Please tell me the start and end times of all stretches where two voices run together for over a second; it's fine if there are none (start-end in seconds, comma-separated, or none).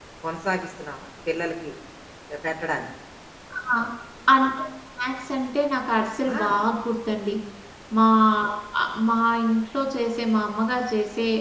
none